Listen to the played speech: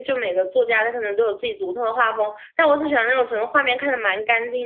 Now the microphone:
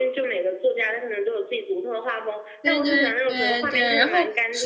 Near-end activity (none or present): present